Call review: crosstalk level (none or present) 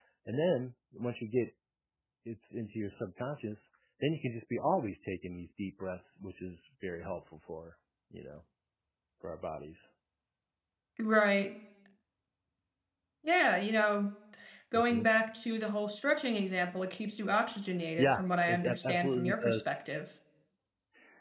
present